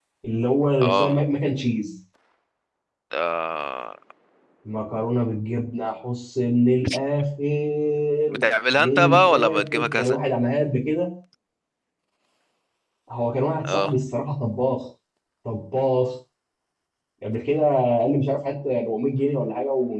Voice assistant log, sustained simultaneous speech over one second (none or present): present